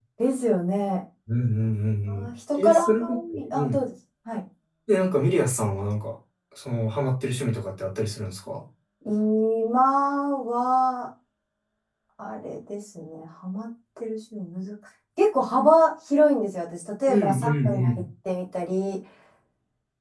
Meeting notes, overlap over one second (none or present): present